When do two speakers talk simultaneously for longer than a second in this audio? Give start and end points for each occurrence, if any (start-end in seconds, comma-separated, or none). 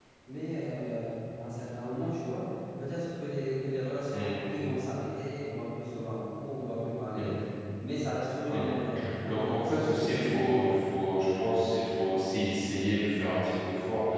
9.2-10.8